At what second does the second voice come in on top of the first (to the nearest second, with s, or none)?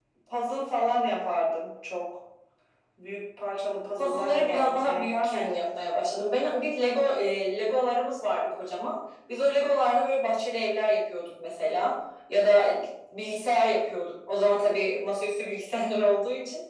4 s